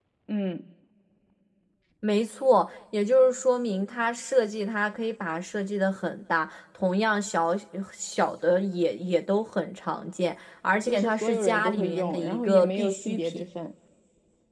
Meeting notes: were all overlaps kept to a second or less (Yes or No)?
No